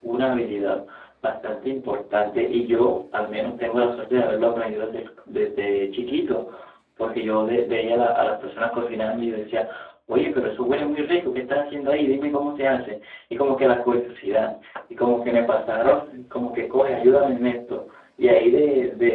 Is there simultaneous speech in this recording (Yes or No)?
No